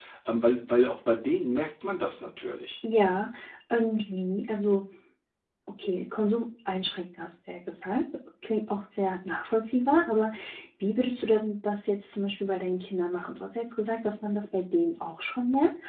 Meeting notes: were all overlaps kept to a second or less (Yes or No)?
Yes